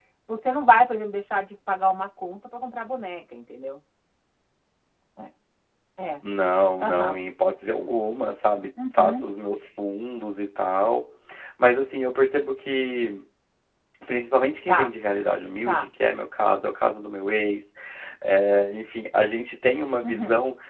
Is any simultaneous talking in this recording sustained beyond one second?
No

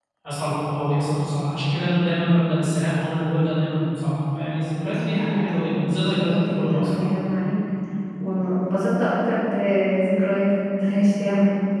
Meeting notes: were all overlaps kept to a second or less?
No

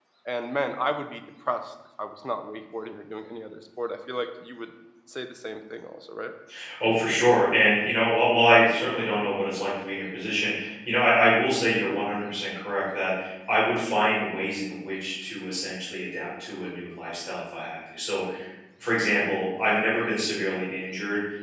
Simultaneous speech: No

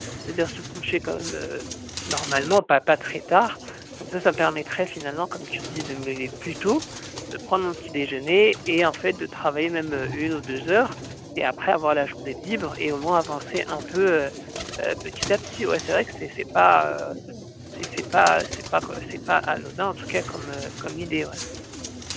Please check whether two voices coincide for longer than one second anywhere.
No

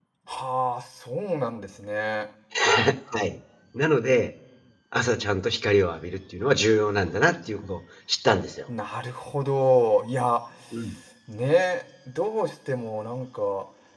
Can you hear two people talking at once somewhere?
No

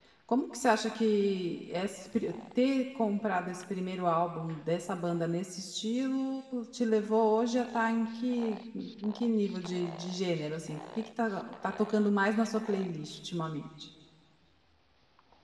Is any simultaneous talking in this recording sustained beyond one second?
No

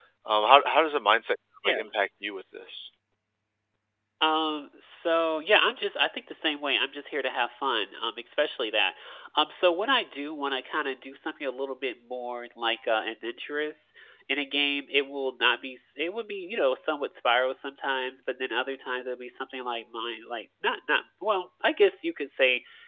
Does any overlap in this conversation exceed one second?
No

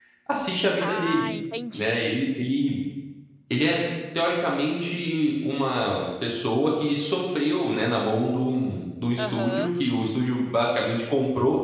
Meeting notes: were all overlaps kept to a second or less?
Yes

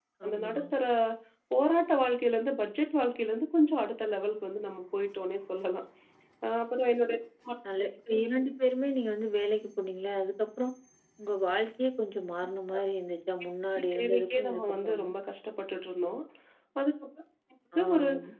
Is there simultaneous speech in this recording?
Yes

